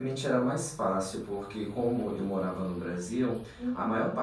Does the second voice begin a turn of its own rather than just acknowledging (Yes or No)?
No